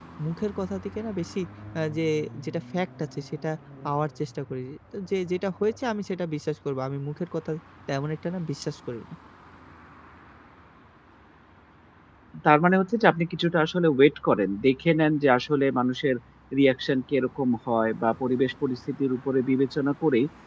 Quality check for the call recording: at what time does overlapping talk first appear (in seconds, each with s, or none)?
none